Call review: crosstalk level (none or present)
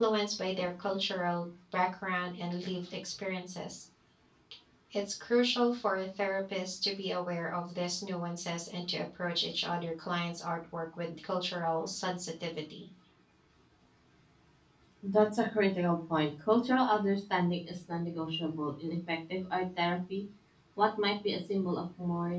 none